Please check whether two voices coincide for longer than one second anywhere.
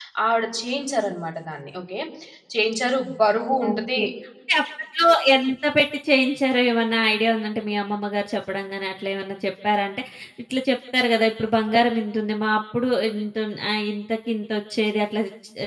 No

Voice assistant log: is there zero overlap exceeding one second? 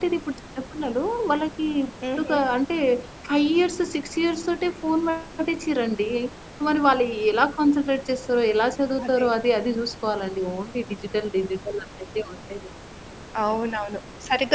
Yes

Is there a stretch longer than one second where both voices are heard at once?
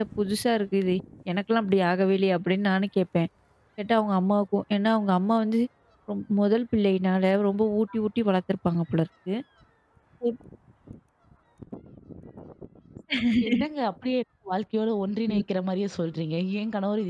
No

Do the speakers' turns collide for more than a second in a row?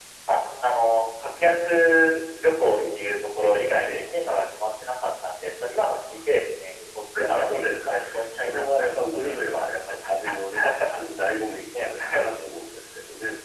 Yes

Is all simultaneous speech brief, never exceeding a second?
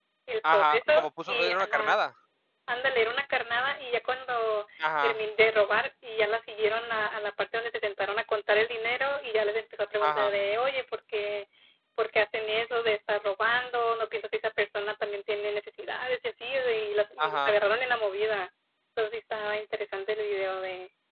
No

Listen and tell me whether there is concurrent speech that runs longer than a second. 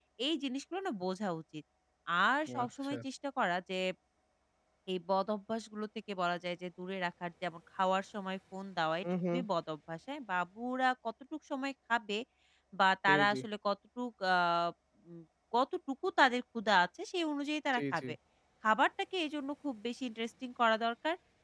No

